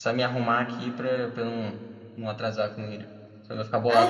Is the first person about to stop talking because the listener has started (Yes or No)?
Yes